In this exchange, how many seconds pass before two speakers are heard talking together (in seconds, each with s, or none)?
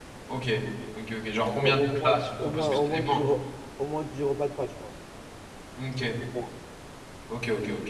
1.6 s